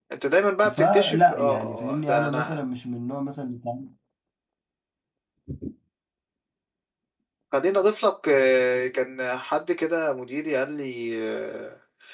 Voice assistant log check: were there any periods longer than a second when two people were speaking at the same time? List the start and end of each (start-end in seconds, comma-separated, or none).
0.7-2.6